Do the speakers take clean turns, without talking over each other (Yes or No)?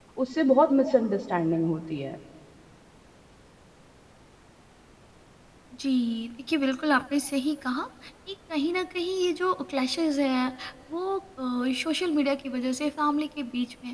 Yes